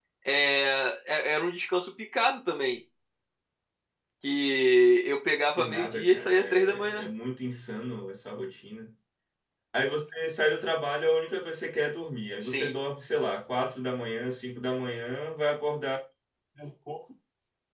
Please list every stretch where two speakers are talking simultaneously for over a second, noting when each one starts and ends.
5.6-7.1

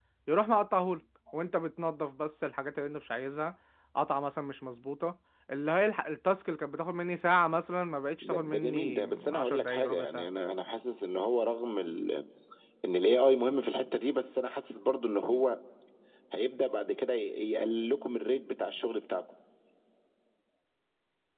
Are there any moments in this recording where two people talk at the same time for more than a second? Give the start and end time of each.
8.2-10.3

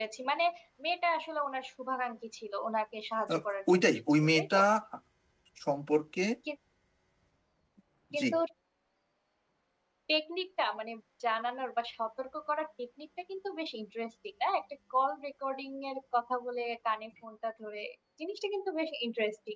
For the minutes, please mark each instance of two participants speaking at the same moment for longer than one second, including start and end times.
3.3-4.6

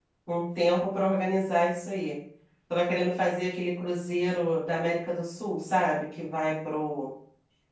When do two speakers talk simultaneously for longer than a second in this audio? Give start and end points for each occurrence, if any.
none

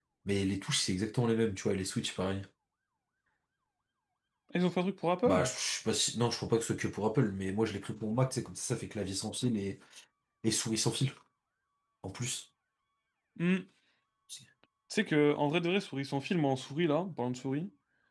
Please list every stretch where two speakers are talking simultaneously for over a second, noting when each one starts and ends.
none

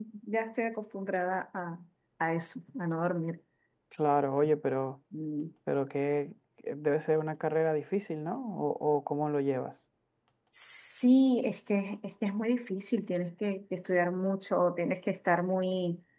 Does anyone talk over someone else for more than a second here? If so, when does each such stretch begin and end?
none

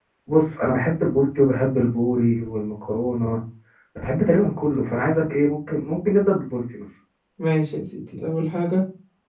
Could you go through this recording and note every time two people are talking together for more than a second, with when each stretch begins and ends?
none

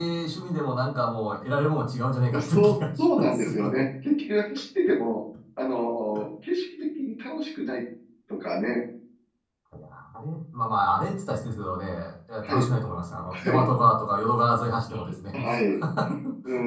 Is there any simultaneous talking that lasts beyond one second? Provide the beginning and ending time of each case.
2.4-3.8

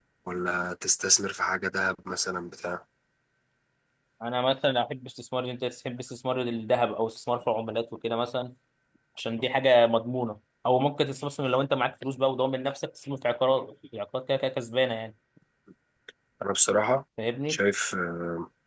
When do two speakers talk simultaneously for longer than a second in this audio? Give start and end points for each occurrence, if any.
none

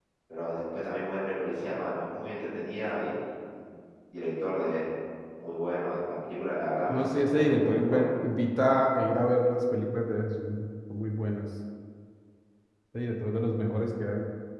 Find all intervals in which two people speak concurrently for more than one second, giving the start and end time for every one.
6.9-8.1

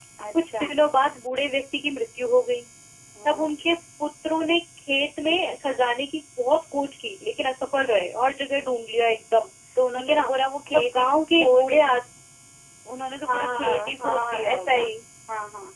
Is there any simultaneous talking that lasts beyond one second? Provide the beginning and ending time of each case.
10.7-12.0, 13.2-14.8

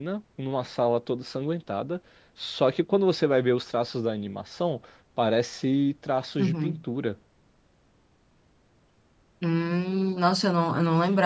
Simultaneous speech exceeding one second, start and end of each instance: none

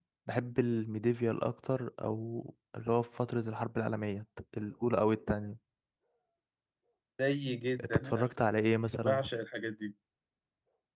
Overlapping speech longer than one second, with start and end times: none

